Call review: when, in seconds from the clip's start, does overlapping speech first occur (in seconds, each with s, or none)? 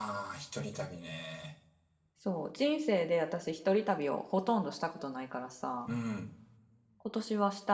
none